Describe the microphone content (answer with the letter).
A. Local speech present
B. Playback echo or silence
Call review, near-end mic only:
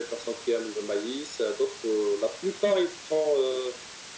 B